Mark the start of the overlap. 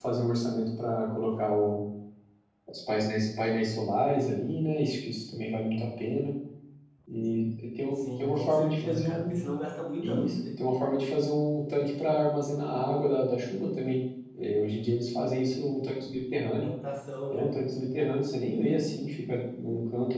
7.9 s

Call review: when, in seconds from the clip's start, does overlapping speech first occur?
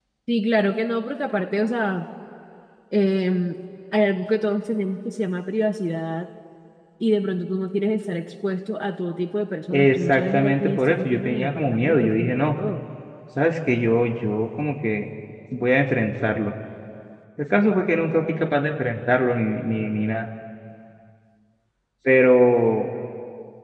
9.7 s

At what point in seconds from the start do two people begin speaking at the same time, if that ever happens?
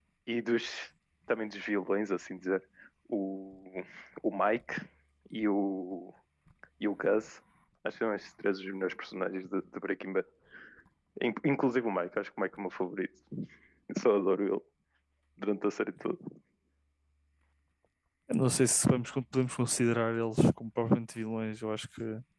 none

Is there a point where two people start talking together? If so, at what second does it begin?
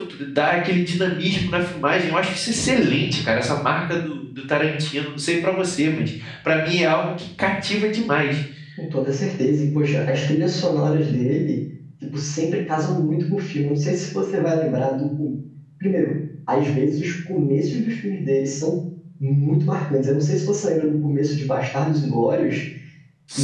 none

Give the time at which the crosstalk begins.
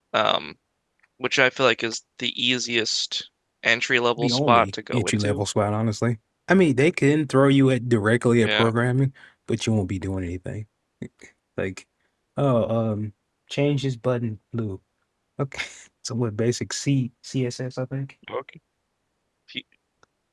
4.2 s

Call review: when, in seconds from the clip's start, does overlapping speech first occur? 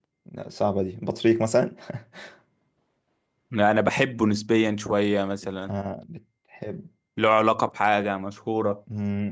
none

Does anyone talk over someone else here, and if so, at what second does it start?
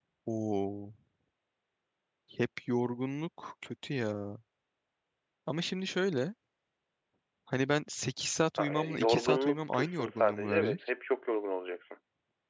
8.5 s

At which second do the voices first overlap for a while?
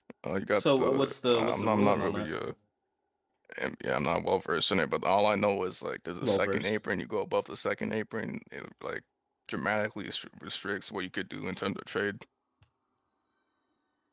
0.6 s

